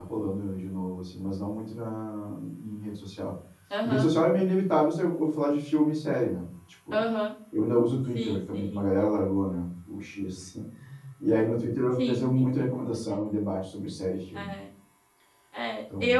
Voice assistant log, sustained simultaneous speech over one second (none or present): present